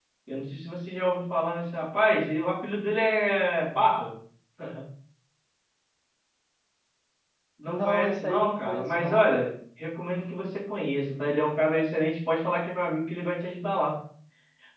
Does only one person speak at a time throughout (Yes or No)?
No